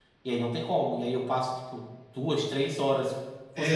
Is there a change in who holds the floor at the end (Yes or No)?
Yes